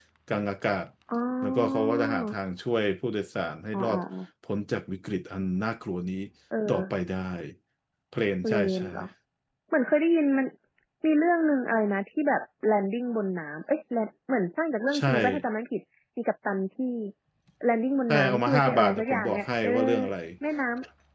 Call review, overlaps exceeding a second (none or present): present